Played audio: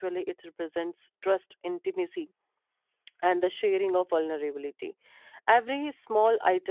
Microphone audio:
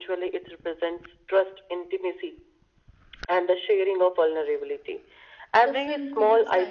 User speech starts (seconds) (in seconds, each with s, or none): 5.6 s